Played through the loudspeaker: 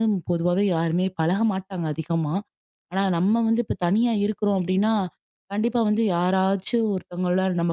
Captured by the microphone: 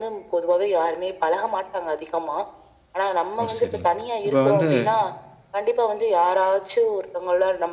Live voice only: ஓ! சரிங்க. இப்ப வந்து

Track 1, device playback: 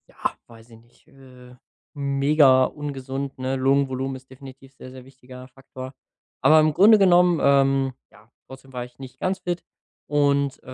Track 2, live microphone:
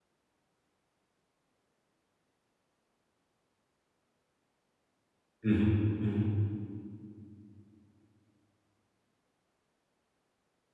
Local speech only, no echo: Mhm. Mhm.

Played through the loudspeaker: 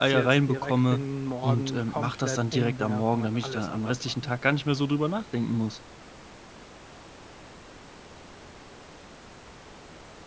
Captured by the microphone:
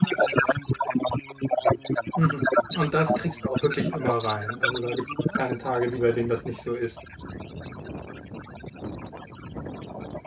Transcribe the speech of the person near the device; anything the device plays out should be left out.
Mhm. Und das kriegst du auch wirklich immer rein? Also, da gibt's jetzt keine Tage, die bei denen das nicht so ist?

